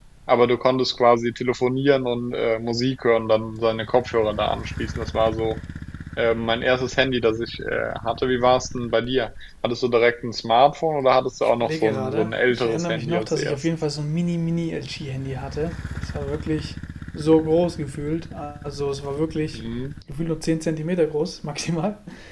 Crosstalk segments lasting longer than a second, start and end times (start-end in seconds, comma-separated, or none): 11.6-13.7